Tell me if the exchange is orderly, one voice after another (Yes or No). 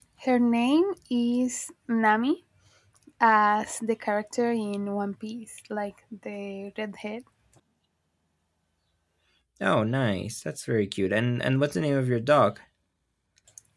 Yes